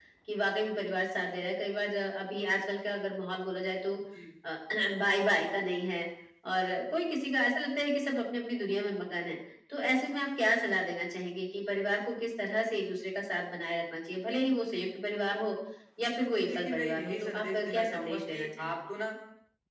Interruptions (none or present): present